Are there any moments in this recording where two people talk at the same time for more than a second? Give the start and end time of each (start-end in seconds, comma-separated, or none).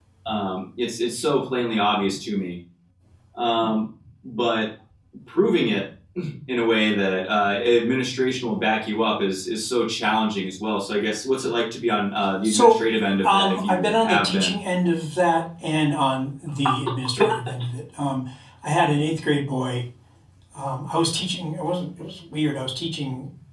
13.2-14.6